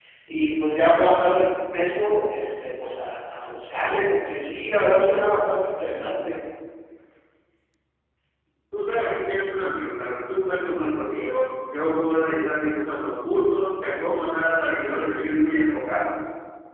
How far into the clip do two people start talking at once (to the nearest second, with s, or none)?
none